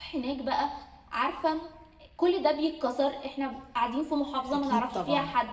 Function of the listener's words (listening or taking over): listening